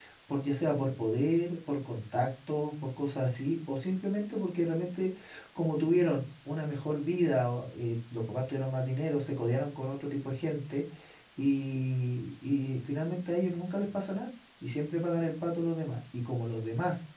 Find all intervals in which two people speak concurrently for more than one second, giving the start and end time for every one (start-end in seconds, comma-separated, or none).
none